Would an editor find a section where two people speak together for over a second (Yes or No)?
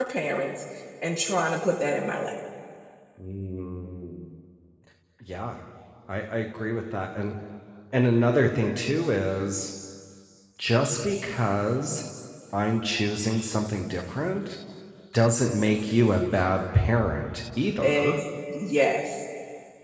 No